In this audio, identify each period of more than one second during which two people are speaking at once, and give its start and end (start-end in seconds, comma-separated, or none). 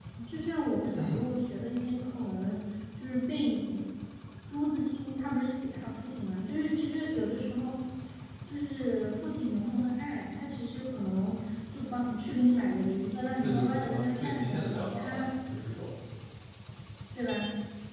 13.4-15.3